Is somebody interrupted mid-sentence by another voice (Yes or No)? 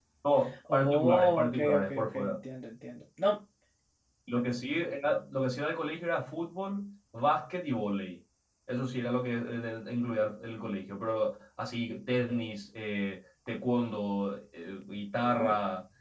Yes